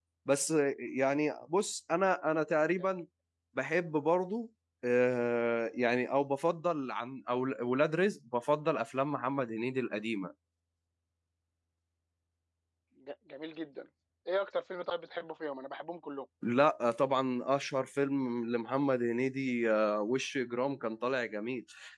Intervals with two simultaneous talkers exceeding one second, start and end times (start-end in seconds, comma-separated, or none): none